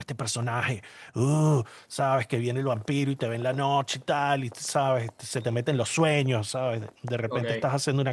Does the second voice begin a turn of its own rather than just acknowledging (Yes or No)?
No